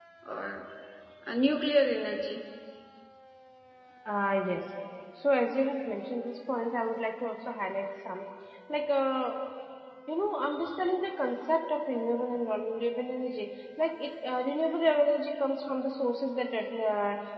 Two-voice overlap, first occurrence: none

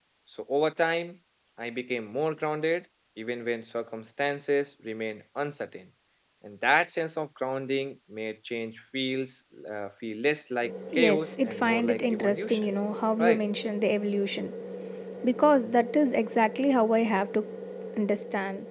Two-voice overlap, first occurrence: 11 s

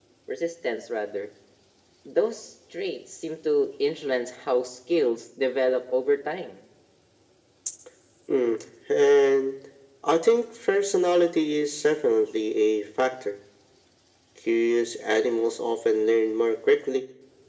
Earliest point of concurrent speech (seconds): none

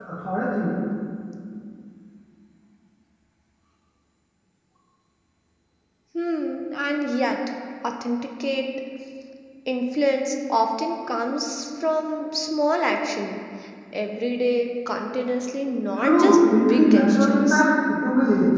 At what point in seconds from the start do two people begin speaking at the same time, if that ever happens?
16 s

